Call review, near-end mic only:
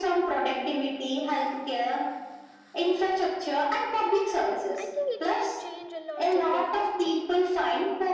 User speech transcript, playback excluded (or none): I think it will change a lot in the future.